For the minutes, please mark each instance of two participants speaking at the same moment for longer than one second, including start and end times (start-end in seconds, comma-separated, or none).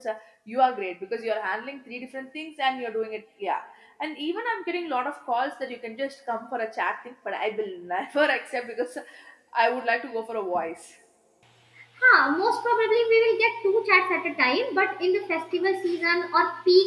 none